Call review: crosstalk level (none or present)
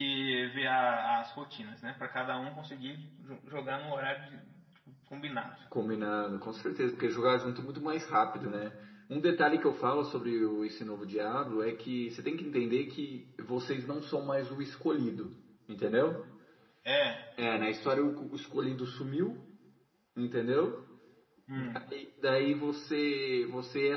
none